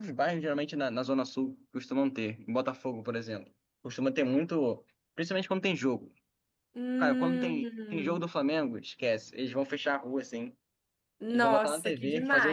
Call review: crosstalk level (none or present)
present